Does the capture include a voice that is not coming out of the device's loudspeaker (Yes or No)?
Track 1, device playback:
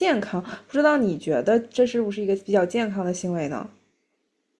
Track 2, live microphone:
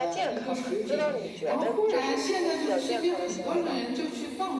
Yes